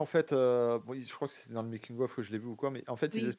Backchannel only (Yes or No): Yes